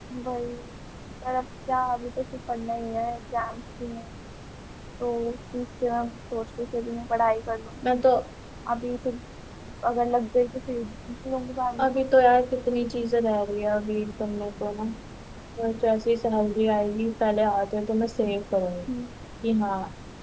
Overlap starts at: none

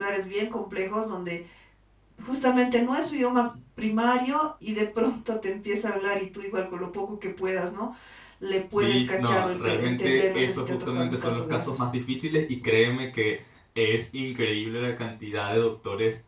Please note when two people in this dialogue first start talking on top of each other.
8.7 s

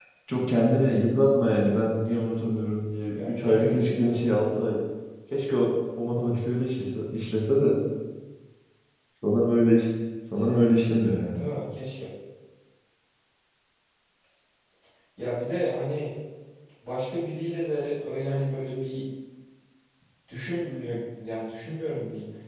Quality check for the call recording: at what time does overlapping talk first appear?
3.1 s

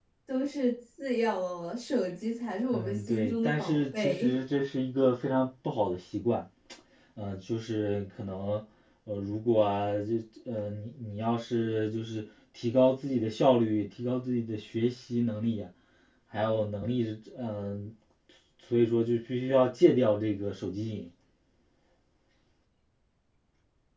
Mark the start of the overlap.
2.7 s

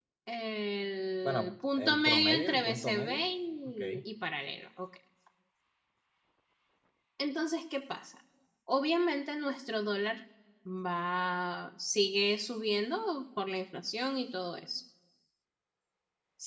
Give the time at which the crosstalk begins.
1.2 s

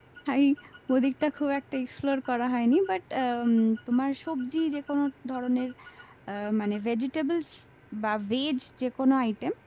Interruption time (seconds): none

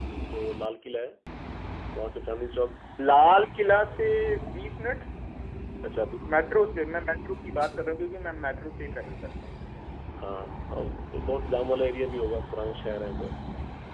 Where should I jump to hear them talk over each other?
none

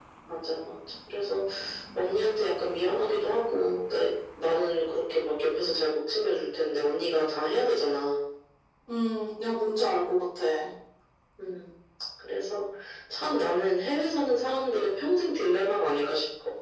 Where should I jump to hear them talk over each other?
none

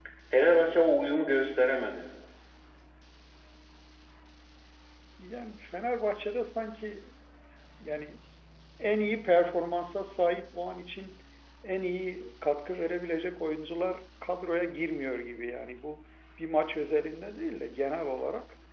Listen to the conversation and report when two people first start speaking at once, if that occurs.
none

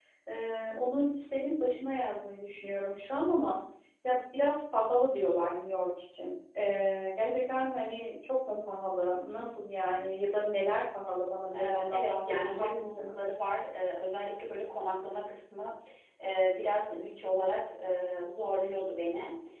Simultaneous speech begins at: 11.5 s

